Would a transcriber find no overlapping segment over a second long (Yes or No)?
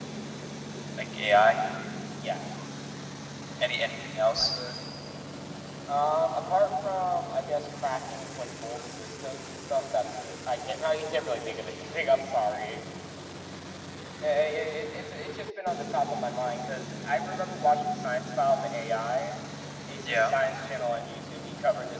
Yes